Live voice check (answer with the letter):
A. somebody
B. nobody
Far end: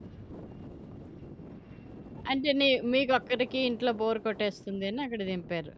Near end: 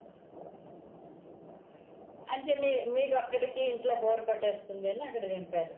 B